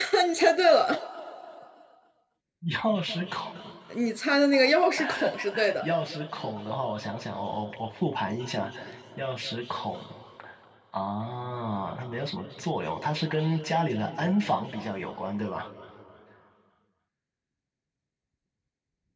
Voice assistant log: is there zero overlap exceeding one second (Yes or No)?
Yes